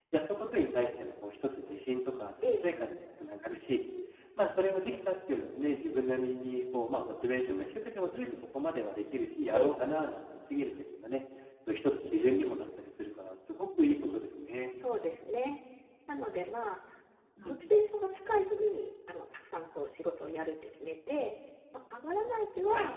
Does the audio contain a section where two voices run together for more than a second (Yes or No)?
No